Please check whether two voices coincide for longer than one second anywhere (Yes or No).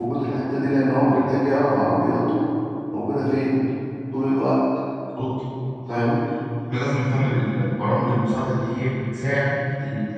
No